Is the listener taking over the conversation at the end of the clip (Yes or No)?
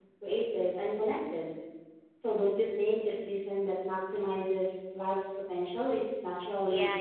Yes